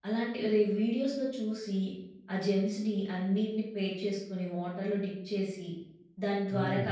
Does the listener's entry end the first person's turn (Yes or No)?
No